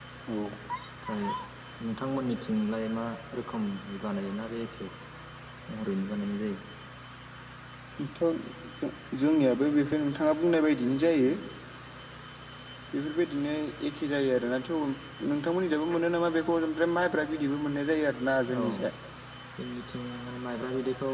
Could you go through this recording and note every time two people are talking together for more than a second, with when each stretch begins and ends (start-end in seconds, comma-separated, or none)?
none